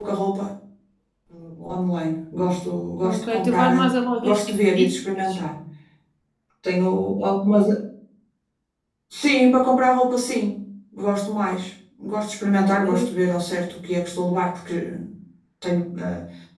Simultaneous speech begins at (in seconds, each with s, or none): 3.0 s